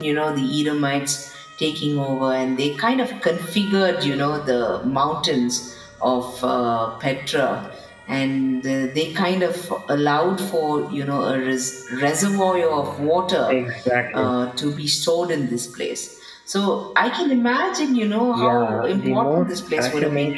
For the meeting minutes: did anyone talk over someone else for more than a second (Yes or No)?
Yes